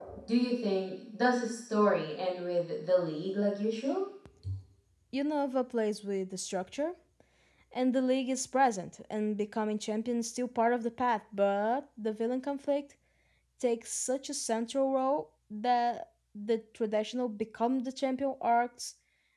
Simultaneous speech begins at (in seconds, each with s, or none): none